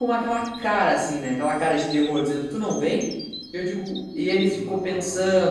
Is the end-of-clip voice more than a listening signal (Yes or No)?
No